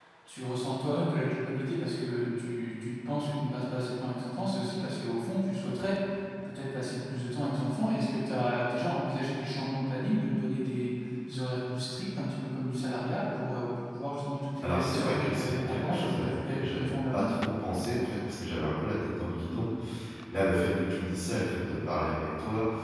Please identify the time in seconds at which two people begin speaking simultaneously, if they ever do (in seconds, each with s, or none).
14.6 s